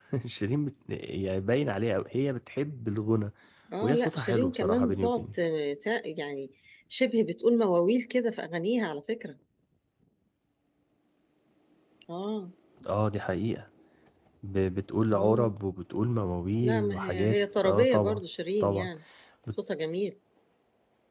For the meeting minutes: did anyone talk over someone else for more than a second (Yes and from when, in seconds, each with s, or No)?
Yes, from 3.8 s